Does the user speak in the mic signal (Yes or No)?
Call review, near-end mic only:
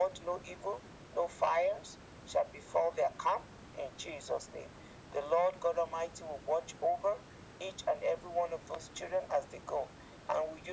No